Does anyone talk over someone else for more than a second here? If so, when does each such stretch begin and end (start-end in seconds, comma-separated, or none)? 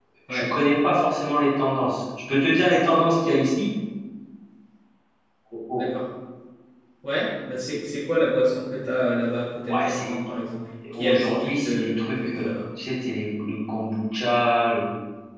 10.9-12.6